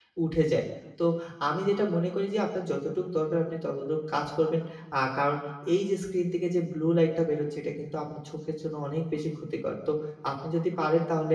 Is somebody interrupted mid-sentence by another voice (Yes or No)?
No